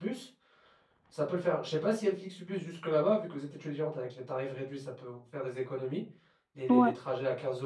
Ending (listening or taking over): listening